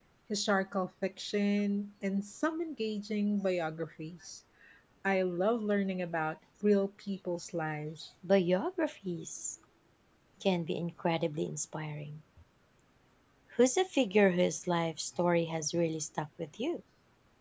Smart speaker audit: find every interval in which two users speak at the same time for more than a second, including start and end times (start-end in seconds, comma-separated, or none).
none